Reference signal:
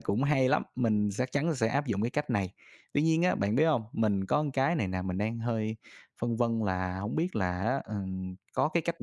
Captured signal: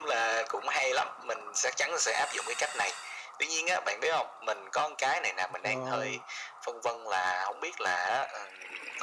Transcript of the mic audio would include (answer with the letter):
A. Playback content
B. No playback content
A